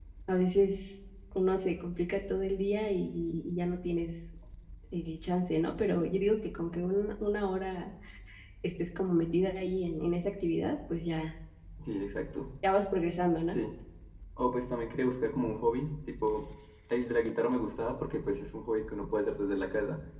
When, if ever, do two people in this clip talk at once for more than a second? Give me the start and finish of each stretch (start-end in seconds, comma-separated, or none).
none